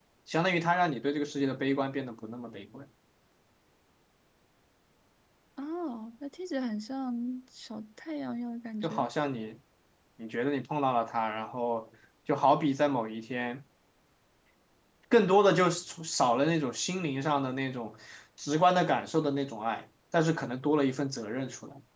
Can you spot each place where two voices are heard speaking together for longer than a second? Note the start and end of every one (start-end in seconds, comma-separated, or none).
none